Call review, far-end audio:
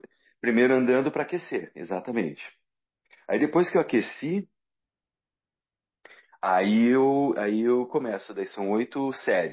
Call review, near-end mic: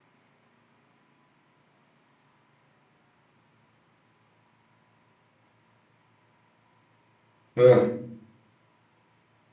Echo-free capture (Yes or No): Yes